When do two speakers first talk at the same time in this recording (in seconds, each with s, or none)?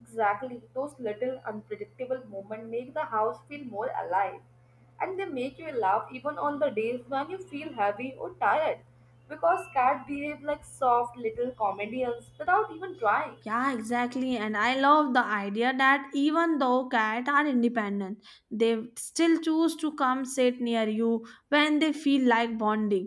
none